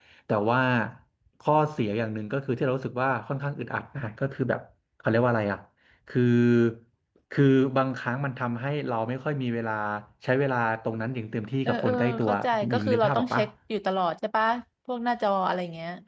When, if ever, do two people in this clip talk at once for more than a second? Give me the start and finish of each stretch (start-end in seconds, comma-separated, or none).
11.7-13.4